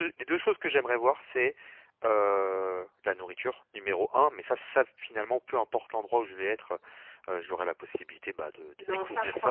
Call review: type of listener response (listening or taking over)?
taking over